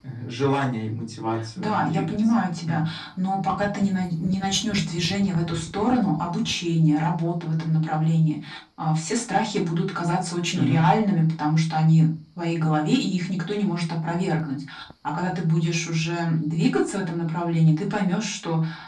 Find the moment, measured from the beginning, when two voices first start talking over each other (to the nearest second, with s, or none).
2 s